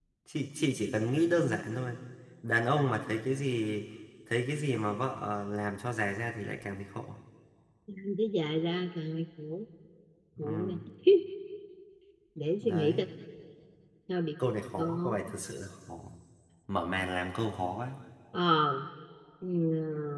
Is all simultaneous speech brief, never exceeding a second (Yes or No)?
Yes